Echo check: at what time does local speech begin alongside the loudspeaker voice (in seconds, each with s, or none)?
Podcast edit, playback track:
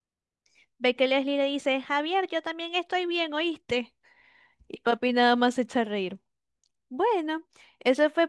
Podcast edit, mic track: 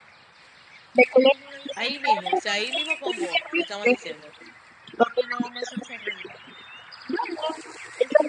1.7 s